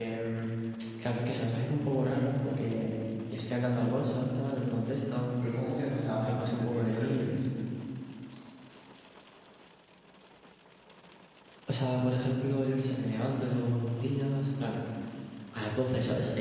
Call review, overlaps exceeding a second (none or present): present